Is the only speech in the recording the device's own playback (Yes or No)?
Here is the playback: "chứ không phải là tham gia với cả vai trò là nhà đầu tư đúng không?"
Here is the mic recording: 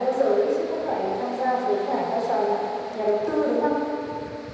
Yes